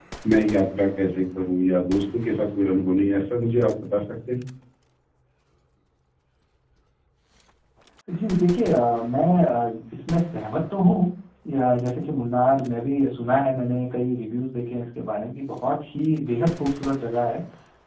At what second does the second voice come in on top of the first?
none

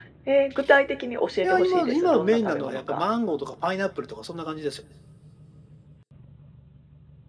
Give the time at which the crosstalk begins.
1.4 s

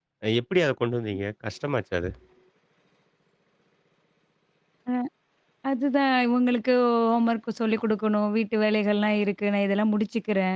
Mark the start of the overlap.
none

